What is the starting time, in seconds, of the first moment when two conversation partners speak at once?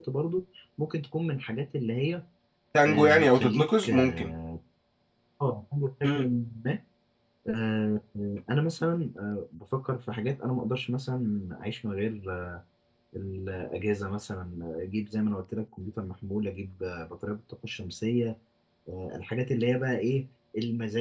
3 s

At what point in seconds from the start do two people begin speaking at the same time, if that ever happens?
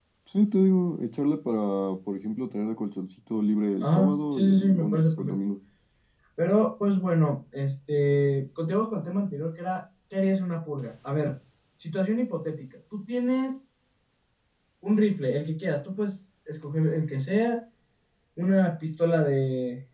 4 s

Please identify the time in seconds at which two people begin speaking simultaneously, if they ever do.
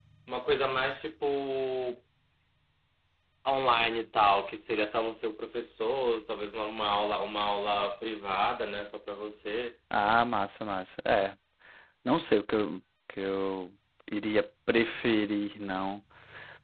none

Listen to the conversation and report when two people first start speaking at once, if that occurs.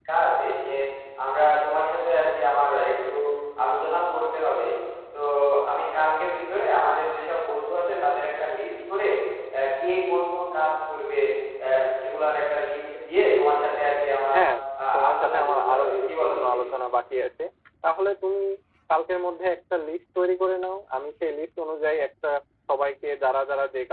15 s

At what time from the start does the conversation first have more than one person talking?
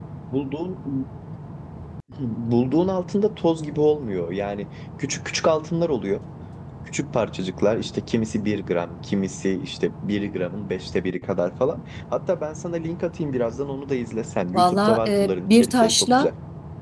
15 s

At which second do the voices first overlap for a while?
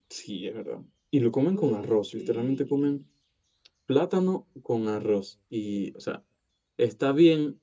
2 s

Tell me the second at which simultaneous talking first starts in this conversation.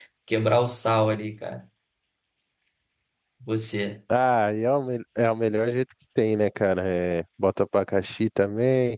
none

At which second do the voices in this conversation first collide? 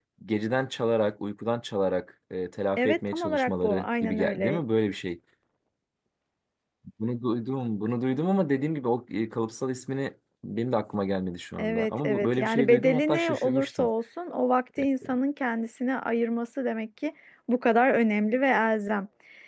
3 s

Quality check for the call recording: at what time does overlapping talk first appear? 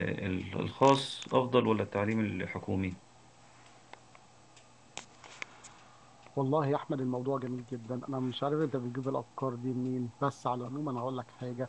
none

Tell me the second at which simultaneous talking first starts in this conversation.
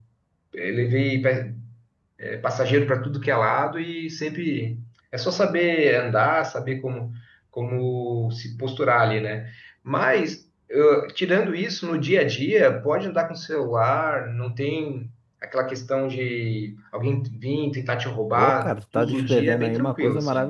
18 s

